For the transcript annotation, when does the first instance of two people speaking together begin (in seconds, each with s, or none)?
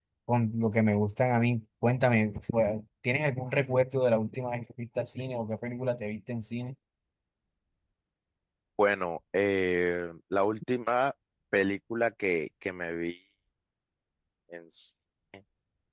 none